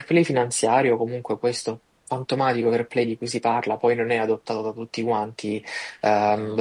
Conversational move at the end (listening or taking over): listening